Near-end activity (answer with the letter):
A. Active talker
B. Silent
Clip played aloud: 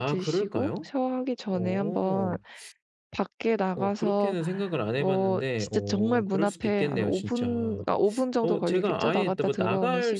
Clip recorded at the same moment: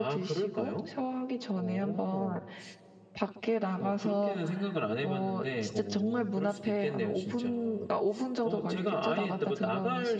B